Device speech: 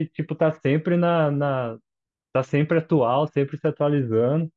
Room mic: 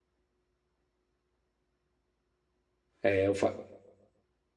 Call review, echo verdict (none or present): none